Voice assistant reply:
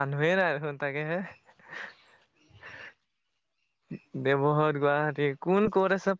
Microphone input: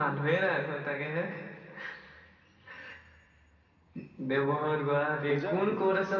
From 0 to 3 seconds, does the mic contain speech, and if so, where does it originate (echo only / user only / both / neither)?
echo only